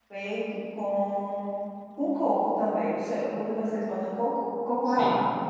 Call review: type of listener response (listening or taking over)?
taking over